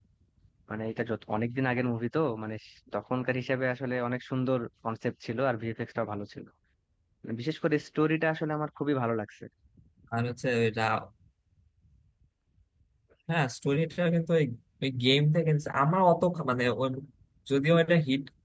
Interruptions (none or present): none